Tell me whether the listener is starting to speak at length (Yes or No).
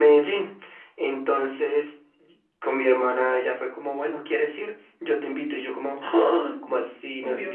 No